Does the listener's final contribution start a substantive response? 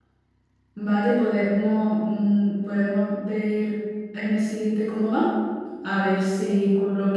No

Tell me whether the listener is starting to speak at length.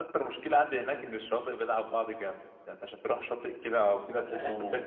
Yes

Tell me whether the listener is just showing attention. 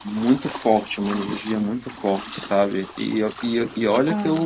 Yes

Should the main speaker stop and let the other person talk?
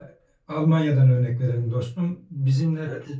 No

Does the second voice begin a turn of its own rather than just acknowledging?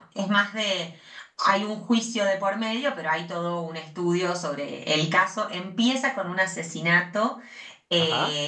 No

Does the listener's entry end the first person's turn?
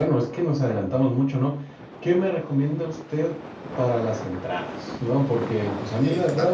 No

